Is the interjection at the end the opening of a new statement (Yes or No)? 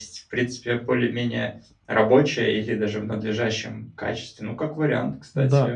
Yes